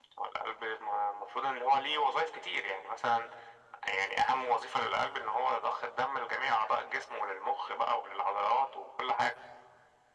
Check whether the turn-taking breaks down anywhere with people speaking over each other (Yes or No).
No